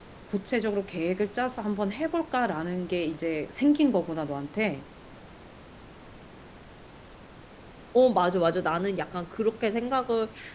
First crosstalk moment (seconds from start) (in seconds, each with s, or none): none